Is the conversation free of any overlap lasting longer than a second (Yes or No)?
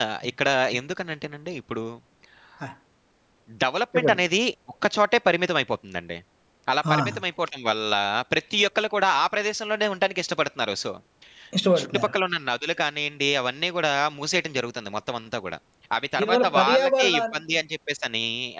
No